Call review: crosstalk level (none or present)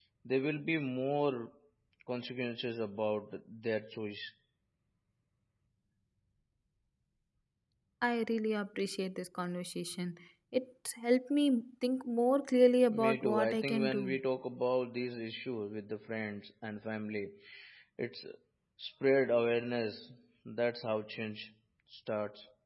present